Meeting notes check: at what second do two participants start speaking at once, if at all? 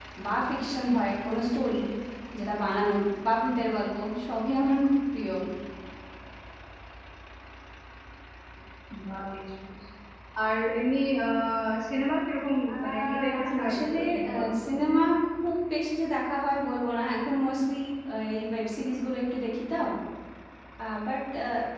13 s

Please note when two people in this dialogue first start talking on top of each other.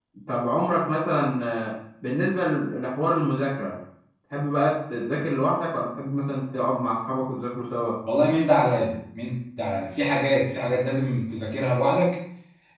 none

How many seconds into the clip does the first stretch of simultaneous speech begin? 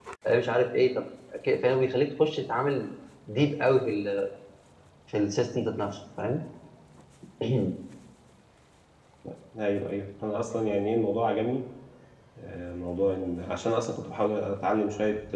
none

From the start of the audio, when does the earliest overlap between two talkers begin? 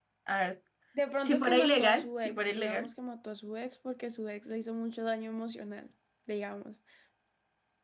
1 s

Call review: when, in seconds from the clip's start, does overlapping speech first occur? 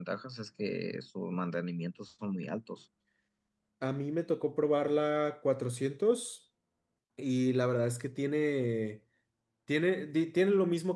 none

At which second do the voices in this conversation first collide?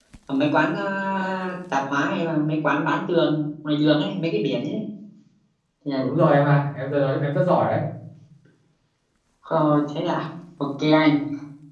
none

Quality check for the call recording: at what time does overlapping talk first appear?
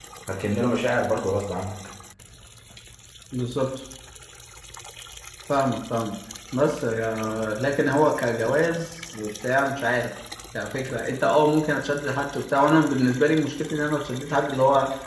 none

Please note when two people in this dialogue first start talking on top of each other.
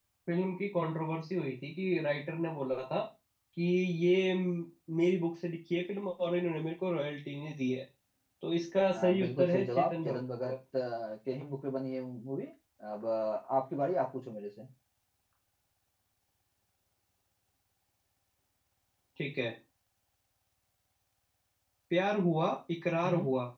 9 s

